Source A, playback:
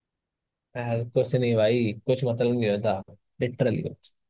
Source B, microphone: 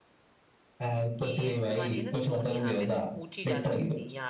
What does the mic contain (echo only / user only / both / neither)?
both